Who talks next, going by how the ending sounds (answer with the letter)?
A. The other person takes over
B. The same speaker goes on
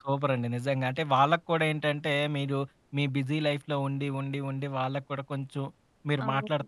B